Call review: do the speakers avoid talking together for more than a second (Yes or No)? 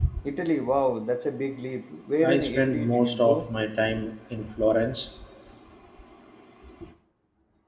No